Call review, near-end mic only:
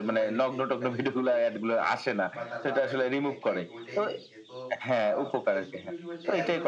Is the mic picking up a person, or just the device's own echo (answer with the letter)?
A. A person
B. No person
A